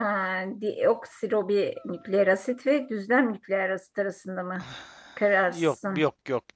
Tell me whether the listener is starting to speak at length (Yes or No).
Yes